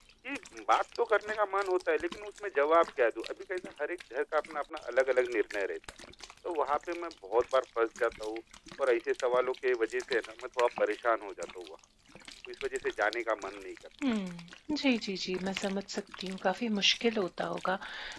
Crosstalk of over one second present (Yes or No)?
No